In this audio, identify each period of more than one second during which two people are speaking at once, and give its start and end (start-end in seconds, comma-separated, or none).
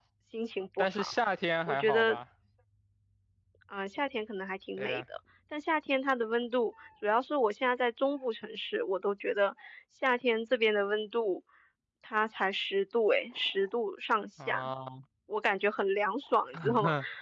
none